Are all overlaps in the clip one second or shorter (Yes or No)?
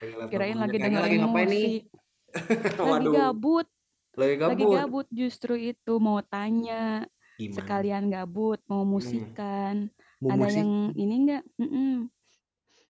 No